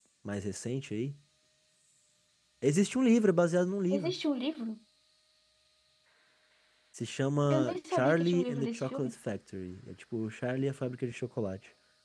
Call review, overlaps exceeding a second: present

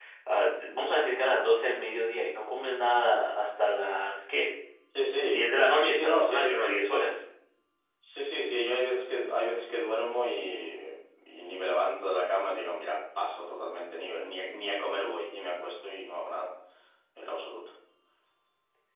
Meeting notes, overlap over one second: present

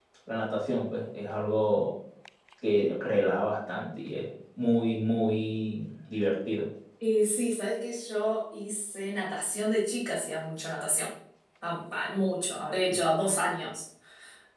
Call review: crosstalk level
none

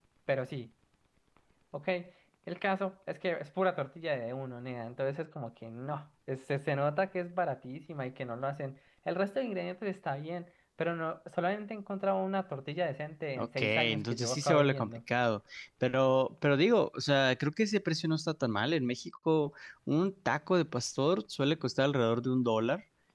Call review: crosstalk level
present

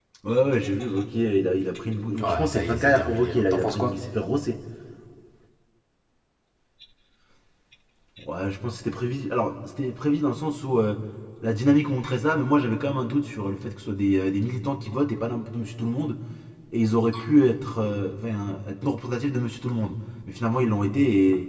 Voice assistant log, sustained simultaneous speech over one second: present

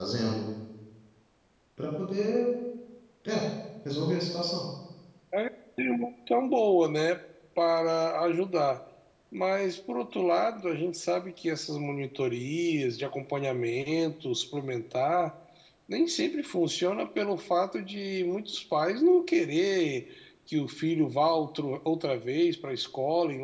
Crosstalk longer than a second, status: none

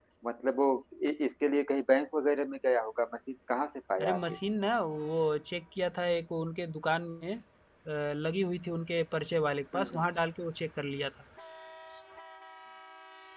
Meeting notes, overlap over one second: none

